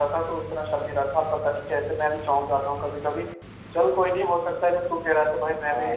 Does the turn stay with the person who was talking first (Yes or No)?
No